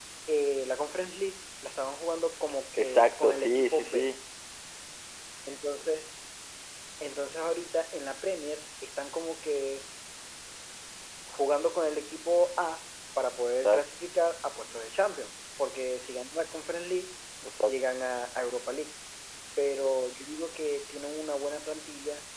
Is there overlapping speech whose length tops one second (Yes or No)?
Yes